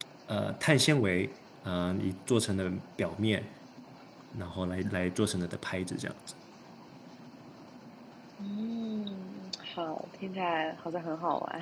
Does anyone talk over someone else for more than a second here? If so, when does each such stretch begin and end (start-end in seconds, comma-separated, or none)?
none